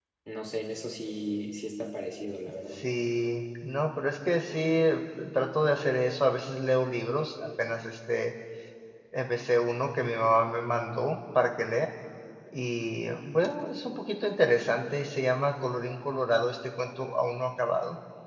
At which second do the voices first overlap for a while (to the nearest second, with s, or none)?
none